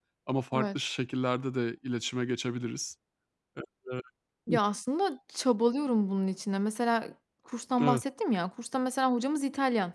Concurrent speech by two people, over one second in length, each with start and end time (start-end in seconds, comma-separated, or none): none